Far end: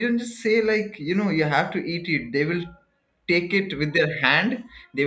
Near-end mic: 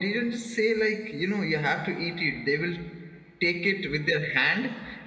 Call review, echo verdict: present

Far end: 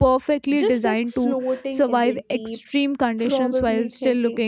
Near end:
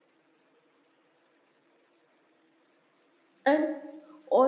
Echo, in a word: none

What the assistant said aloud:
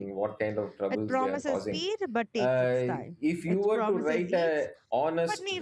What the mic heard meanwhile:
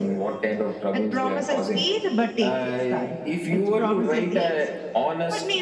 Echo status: present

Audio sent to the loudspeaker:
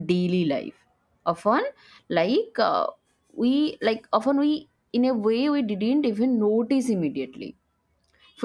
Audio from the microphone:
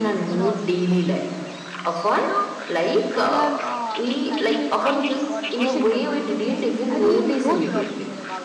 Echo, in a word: present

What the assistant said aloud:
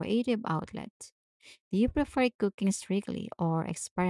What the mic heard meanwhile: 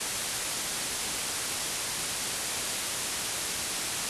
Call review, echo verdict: none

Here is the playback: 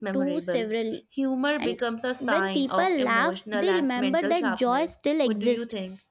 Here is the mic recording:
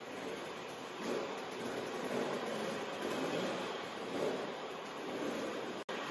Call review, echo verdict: none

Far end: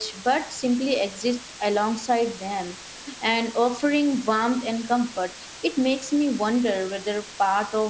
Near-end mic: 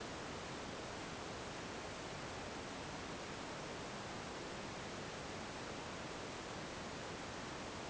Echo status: none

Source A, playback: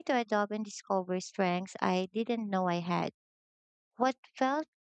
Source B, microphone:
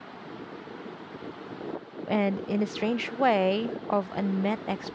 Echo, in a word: none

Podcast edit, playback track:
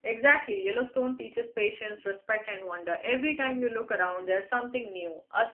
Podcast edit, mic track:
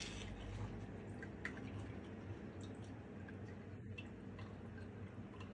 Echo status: none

